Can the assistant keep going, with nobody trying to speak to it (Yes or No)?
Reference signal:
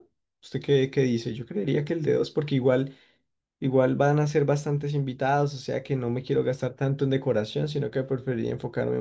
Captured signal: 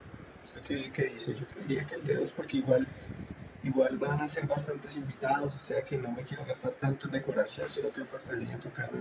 Yes